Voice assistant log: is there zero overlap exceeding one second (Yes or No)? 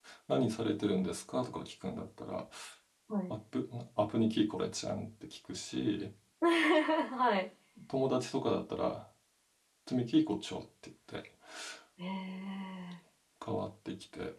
Yes